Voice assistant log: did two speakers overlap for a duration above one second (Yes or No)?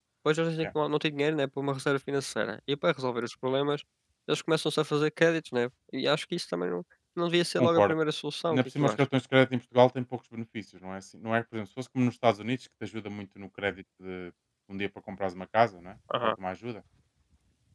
No